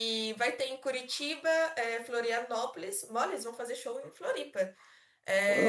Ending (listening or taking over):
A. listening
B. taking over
A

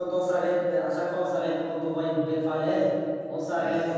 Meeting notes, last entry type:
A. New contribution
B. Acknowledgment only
B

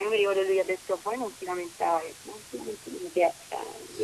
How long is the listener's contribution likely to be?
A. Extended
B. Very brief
A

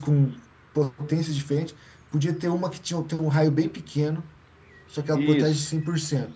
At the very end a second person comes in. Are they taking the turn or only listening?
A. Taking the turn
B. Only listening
B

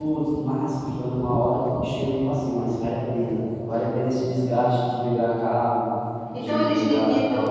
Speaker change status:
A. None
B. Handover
B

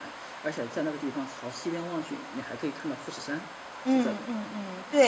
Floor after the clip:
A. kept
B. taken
B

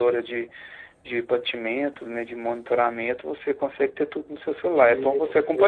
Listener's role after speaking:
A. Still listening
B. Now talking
B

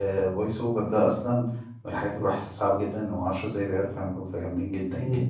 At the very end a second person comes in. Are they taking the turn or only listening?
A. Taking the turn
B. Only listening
A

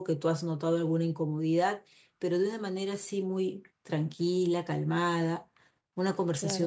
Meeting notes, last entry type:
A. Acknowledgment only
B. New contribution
B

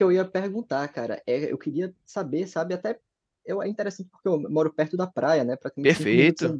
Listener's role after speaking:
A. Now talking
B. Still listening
B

